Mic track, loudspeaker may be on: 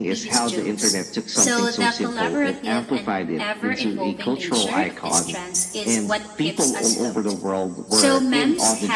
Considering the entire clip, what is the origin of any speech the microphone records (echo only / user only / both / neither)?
both